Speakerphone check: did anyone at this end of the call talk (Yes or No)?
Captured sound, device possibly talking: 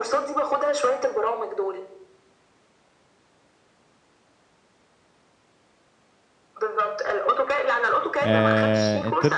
Yes